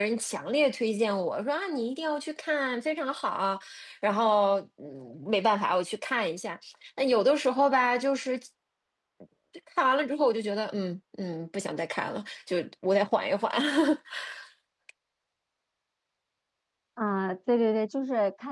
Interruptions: none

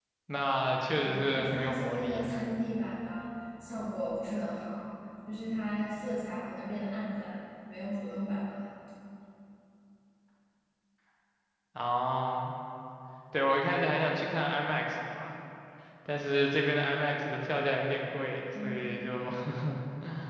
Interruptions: present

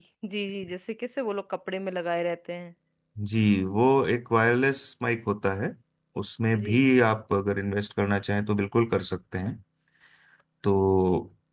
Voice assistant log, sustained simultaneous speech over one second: none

